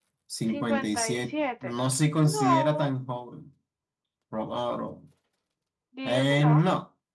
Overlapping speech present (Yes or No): Yes